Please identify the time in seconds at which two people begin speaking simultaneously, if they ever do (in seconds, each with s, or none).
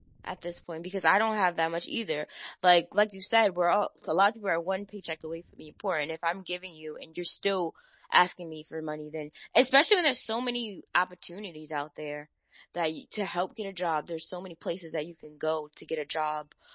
none